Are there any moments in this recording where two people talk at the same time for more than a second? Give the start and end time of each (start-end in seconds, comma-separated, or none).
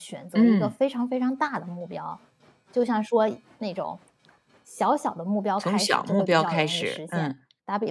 5.6-7.3